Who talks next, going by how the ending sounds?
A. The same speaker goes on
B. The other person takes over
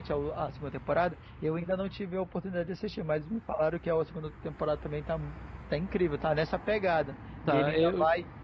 A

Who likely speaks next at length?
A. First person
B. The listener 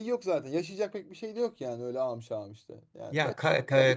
B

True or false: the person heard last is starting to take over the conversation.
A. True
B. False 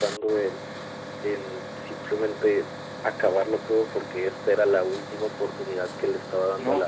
A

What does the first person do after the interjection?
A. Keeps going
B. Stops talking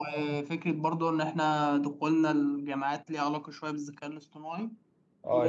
B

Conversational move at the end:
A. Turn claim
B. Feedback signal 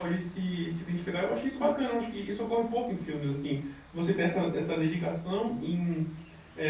B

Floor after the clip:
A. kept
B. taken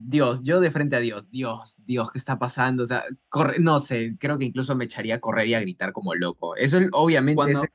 B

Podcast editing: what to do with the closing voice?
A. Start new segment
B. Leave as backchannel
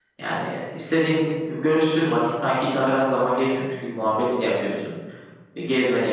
B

